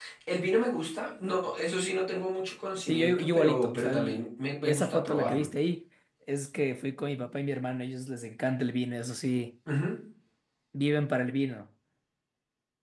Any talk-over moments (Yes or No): Yes